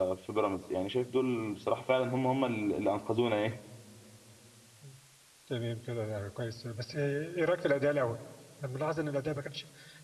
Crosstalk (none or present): none